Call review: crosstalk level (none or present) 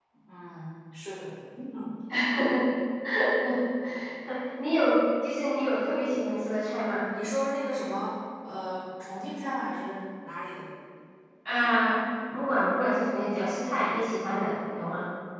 none